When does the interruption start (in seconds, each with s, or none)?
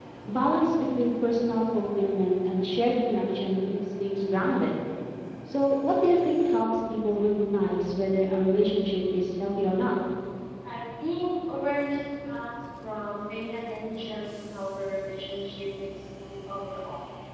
none